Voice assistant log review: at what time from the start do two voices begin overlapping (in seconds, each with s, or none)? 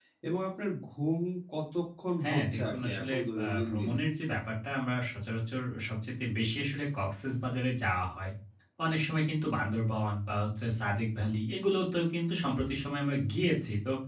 2.2 s